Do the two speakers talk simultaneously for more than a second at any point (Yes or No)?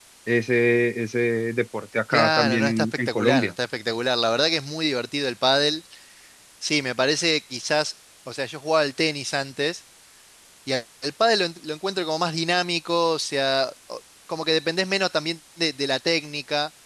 Yes